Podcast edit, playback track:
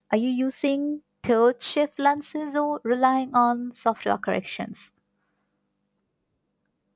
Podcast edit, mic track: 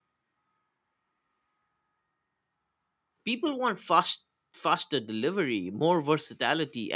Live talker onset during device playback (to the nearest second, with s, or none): 3 s